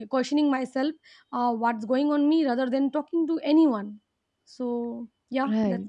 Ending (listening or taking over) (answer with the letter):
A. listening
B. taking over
B